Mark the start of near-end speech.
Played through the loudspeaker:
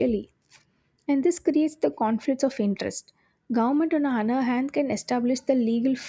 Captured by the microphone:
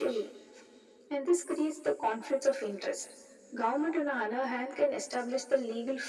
none

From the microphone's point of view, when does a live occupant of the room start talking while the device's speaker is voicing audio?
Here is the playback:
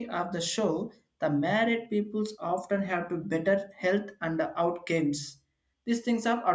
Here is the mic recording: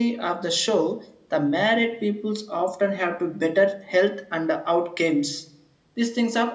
none

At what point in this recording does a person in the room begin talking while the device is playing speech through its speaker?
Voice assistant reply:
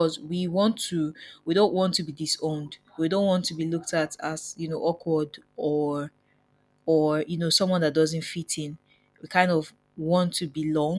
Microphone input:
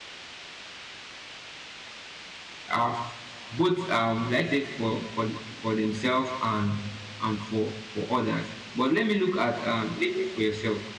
2.7 s

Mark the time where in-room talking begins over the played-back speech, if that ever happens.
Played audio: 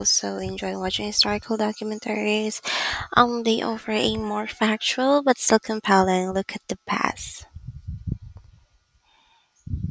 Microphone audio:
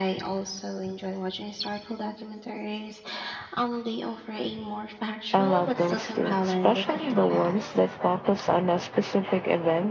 5.3 s

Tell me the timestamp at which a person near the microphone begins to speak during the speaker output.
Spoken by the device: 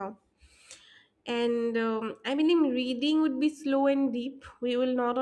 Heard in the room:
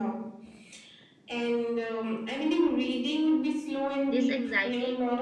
4.0 s

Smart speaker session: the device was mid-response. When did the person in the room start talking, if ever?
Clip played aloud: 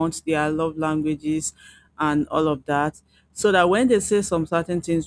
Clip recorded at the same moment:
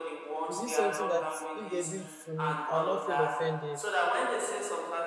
0.5 s

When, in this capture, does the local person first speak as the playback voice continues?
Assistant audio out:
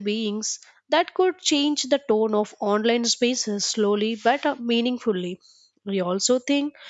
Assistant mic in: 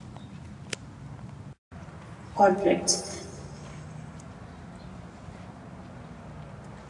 2.3 s

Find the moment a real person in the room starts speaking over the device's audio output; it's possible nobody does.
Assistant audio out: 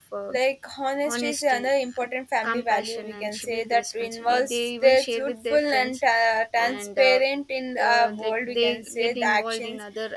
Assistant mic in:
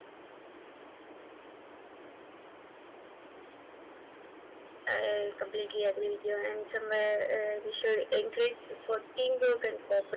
4.9 s

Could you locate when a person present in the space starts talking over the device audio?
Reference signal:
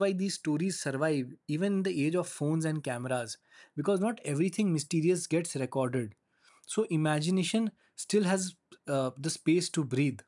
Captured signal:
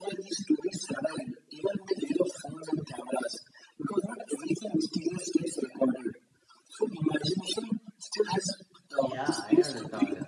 9.0 s

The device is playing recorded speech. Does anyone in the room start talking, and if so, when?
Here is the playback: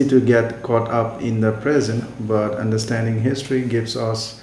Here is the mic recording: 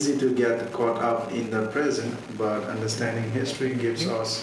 2.9 s

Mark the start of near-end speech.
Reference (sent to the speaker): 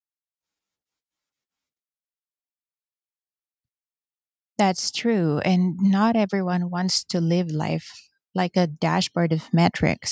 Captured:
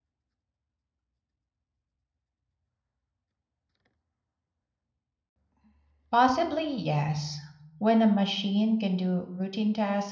6.1 s

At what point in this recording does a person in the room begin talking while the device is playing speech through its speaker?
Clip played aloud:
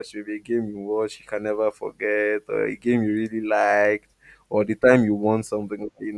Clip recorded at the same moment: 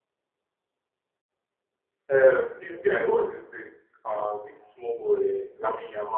2.1 s

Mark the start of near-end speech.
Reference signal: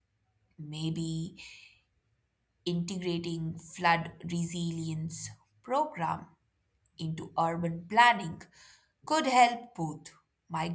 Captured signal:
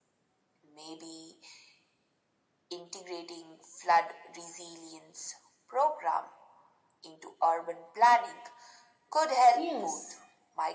9.5 s

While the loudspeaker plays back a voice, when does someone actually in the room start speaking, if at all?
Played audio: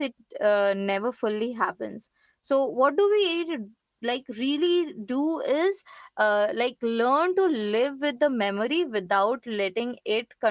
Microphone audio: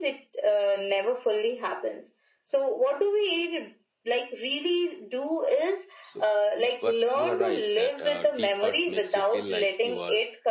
6.0 s

